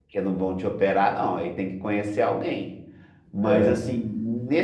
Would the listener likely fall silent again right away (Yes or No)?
Yes